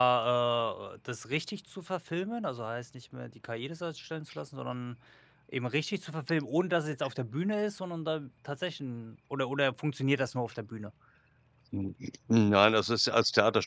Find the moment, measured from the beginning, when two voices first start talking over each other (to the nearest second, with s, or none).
none